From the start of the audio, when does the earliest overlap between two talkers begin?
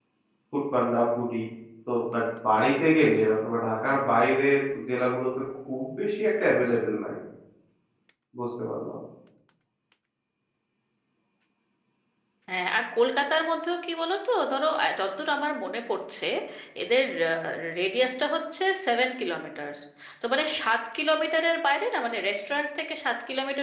none

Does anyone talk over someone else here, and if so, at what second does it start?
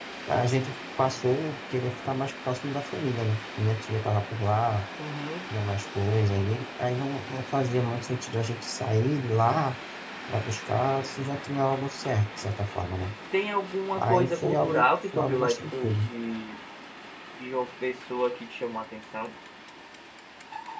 14.0 s

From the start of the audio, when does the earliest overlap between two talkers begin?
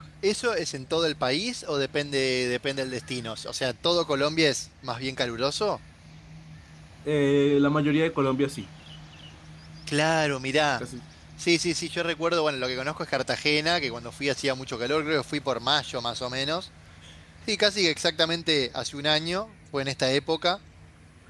none

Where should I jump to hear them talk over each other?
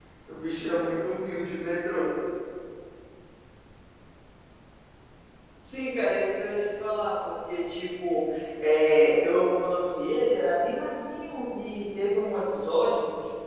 none

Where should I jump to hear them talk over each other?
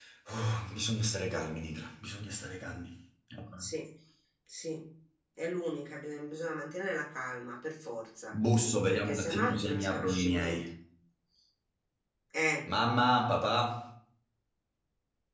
8.9 s

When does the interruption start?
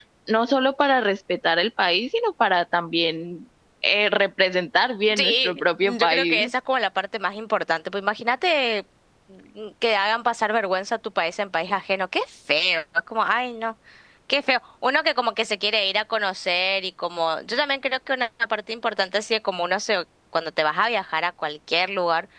5.1 s

